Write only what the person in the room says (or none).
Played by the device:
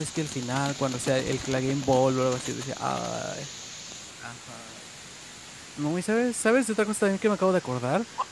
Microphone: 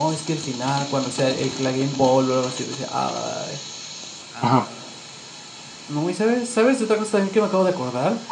Ajá.